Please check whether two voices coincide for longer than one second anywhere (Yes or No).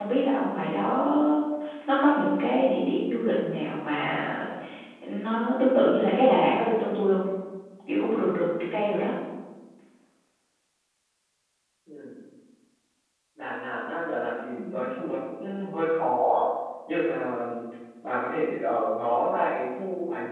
No